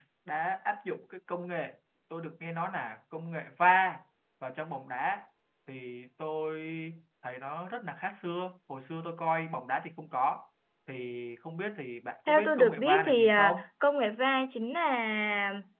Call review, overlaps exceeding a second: present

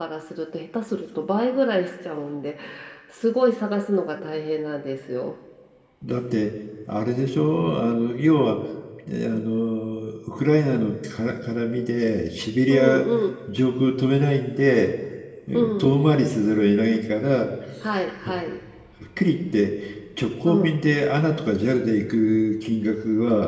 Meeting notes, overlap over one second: none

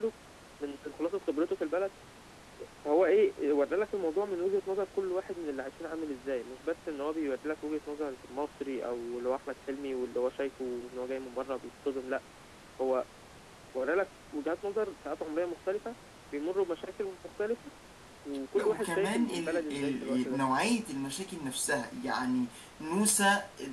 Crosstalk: present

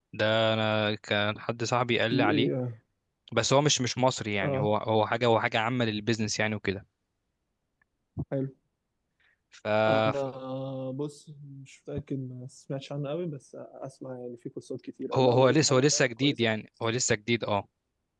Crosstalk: present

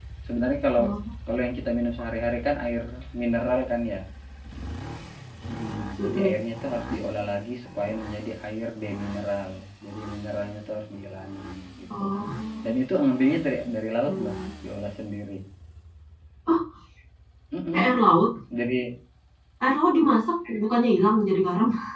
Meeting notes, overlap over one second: none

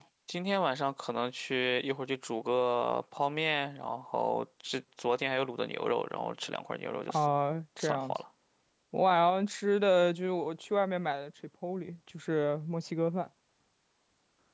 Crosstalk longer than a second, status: none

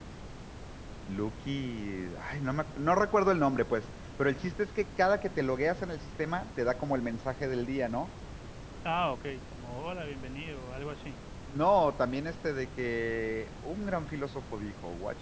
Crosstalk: none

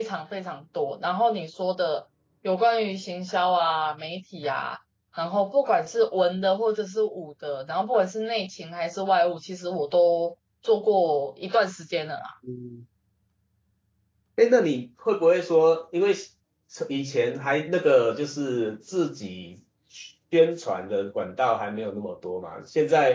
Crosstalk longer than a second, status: none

